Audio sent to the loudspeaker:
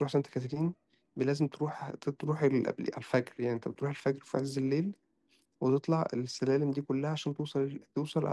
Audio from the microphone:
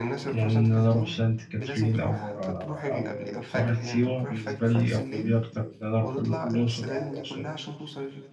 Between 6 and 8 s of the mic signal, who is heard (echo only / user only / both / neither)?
both